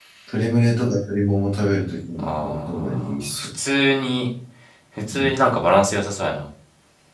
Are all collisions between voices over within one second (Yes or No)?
No